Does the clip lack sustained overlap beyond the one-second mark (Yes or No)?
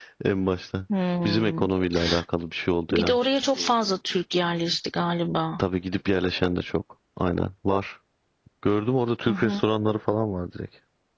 Yes